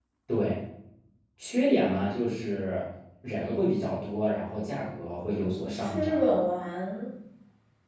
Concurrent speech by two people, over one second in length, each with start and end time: 4.5-6.4

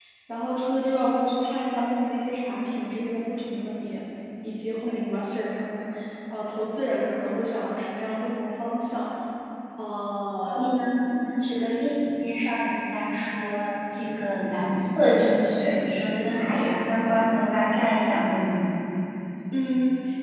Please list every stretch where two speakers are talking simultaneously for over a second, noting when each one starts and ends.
none

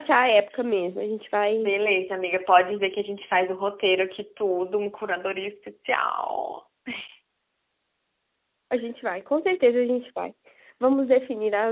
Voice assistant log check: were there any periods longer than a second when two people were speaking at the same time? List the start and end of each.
none

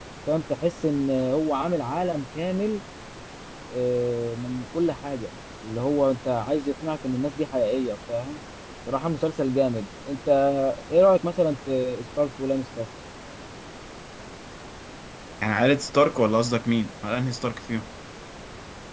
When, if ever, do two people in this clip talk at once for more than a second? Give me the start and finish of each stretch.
none

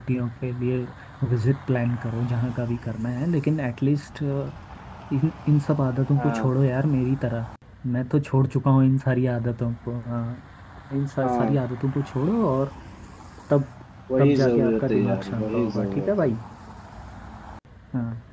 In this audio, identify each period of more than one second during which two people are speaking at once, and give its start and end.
14.2-16.3

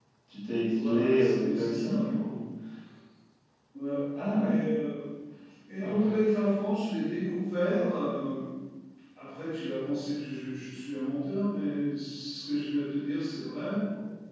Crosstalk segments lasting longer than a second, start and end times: 0.7-2.1

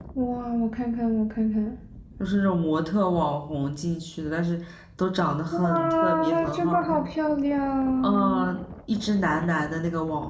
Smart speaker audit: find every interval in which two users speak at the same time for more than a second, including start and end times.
5.5-7.0

